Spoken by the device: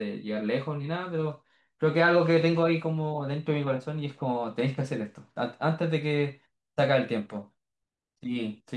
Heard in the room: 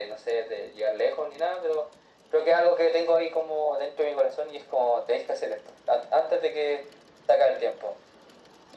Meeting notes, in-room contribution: none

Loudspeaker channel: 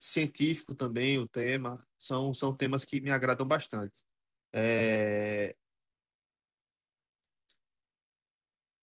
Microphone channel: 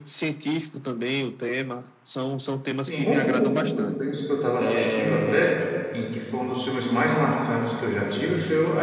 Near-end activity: present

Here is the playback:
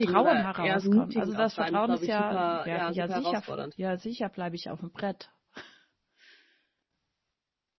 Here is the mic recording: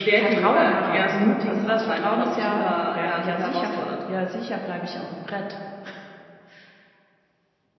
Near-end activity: none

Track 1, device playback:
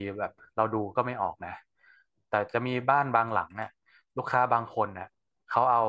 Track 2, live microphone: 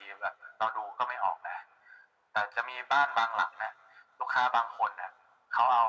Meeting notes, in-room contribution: none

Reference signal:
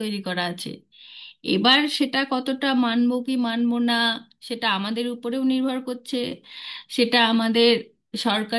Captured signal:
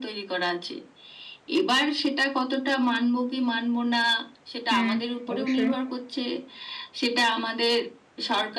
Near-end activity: present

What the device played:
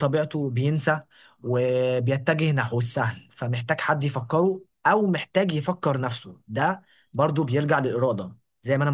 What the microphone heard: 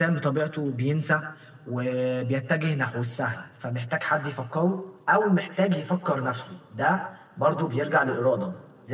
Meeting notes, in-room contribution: none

